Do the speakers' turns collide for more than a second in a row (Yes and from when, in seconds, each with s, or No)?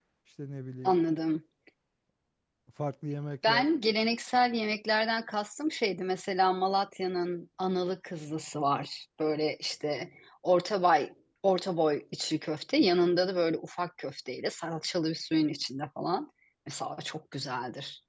No